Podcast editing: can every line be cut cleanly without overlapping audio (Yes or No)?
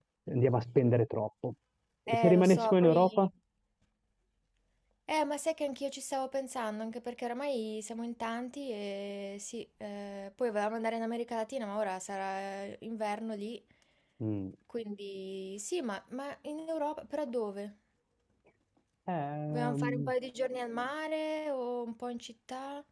No